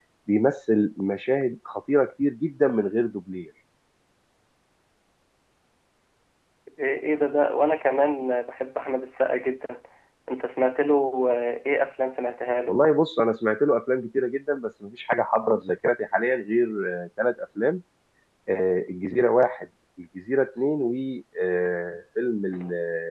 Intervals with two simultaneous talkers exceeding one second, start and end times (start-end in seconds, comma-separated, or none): none